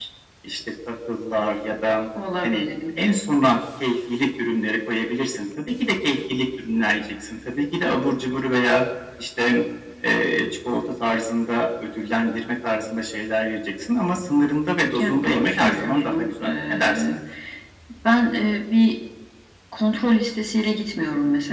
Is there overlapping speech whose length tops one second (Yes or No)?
Yes